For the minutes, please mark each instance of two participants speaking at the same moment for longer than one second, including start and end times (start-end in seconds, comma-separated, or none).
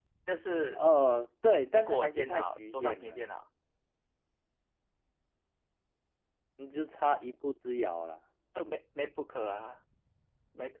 1.7-3.2